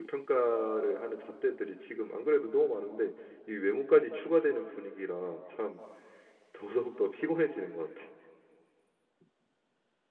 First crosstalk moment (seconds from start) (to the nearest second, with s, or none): none